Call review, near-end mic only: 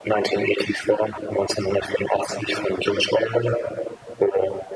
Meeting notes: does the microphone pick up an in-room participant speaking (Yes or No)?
No